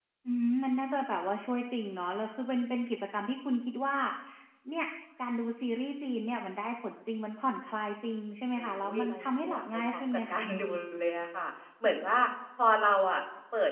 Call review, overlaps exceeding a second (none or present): present